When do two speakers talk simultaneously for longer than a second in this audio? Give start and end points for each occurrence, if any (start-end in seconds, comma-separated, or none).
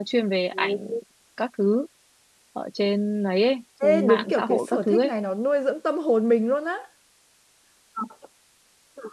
3.8-5.1